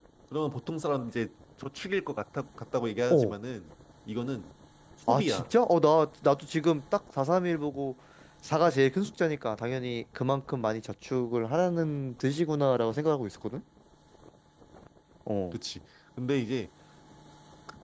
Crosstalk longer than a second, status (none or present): none